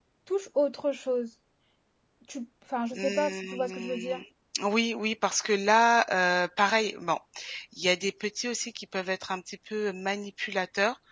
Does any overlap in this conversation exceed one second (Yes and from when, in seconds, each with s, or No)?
Yes, from 2.9 s